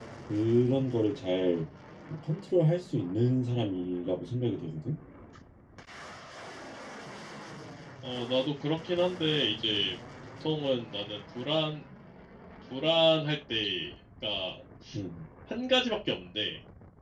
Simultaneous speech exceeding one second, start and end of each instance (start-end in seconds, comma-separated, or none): none